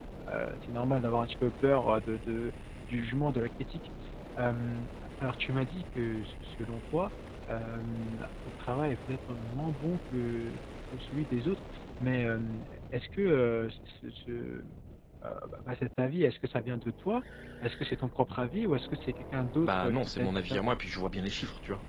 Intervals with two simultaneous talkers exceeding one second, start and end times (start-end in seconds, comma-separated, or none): 19.4-20.6